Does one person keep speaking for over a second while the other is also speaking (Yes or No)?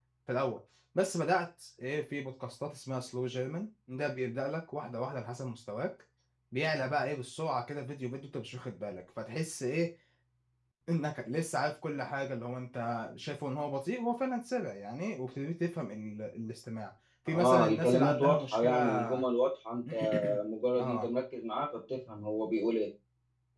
Yes